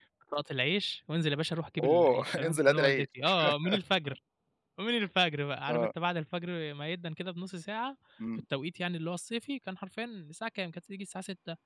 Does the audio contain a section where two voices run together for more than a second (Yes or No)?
Yes